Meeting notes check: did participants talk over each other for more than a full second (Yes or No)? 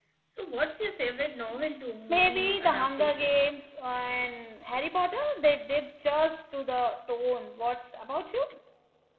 Yes